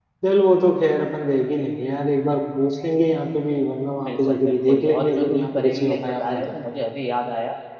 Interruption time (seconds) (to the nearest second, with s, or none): 4 s